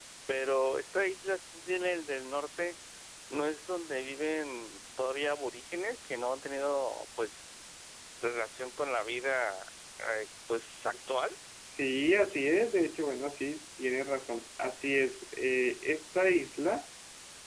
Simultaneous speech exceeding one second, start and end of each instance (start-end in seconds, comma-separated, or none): none